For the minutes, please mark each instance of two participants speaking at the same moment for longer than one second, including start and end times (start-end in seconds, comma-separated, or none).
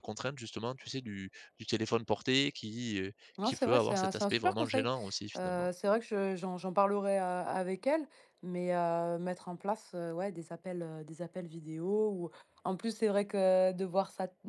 3.4-4.9